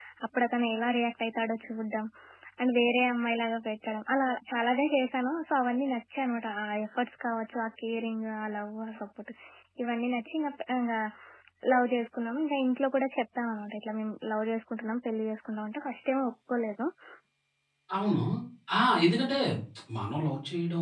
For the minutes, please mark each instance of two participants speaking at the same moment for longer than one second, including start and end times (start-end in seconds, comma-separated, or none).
none